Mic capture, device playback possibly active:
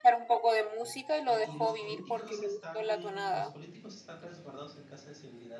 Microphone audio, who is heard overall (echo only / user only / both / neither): both